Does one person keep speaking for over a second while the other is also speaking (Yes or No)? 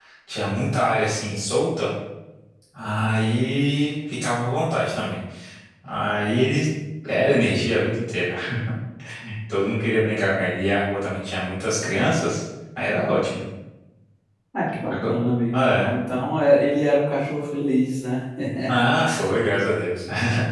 No